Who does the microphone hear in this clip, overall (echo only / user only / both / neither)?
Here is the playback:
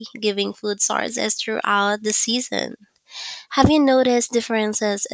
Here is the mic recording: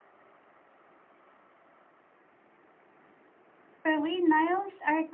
user only